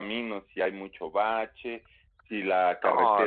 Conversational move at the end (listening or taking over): listening